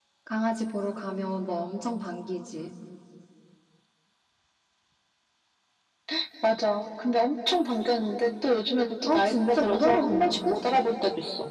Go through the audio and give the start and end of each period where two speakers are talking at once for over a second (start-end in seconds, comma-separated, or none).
9.1-10.6